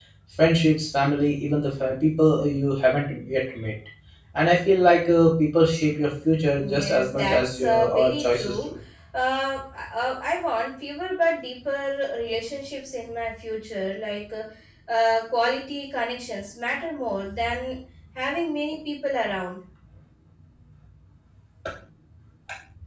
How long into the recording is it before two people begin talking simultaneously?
6.5 s

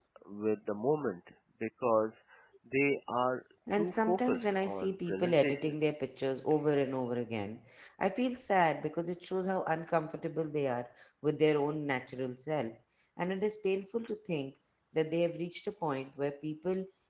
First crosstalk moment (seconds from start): 3.7 s

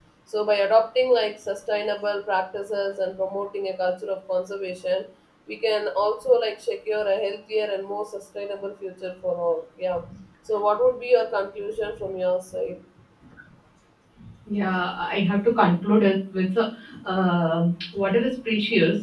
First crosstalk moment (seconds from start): none

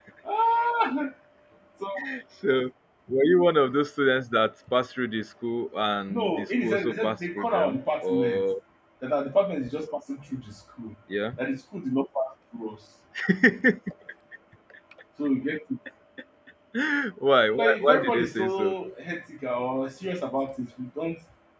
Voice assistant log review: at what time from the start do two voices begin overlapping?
6.1 s

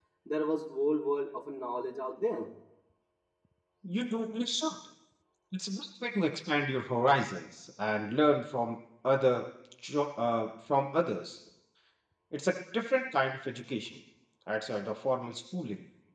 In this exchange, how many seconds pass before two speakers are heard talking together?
none

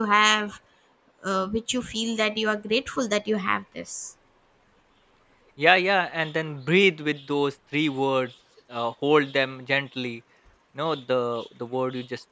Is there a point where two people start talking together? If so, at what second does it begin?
none

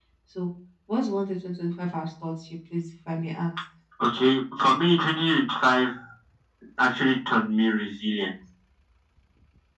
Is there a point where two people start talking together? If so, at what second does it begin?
none

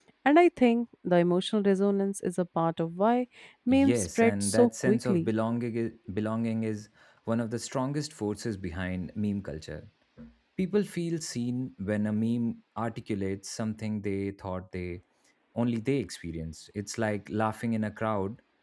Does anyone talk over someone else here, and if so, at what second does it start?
3.7 s

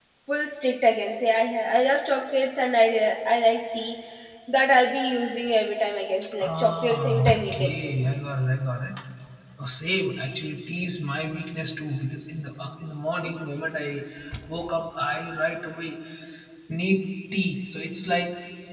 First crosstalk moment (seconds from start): 6.2 s

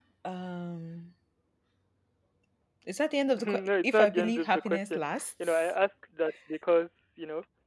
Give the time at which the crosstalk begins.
3.5 s

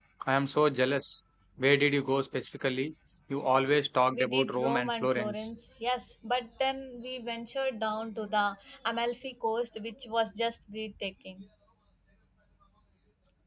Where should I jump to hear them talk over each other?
4.1 s

